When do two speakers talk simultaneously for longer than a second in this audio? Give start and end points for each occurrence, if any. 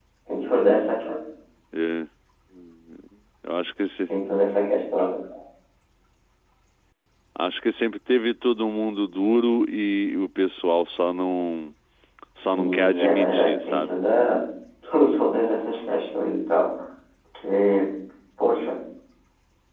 12.4-14.0

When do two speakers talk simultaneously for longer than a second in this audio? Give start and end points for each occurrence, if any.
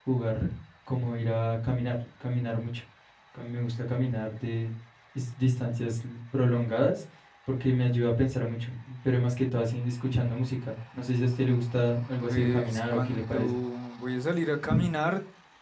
12.2-13.4

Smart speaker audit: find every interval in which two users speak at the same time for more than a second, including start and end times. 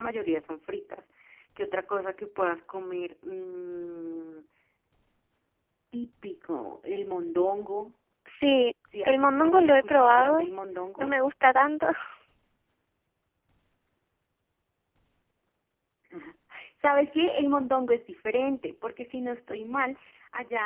9.1-10.4

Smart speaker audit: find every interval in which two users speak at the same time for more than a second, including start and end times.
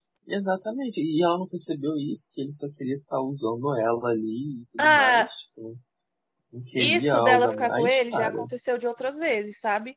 6.8-8.4

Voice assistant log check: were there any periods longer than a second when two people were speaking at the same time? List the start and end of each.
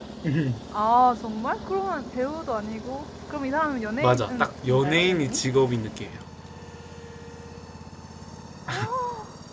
4.0-5.4

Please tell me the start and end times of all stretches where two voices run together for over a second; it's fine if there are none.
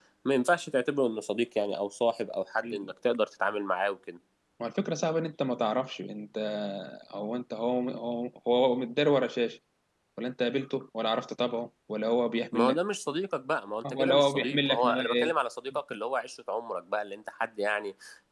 13.8-15.3

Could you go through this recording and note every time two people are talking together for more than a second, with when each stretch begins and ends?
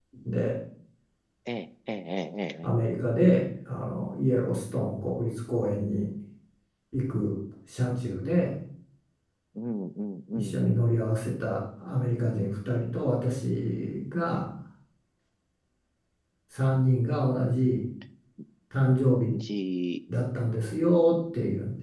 none

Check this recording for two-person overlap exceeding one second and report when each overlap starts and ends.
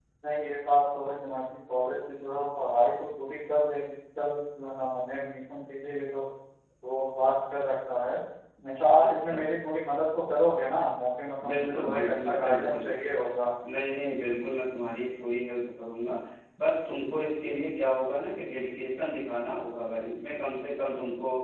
11.5-12.9

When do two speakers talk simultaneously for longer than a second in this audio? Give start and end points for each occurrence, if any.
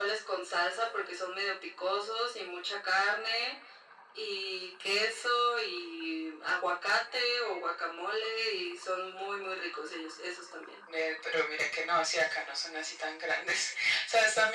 none

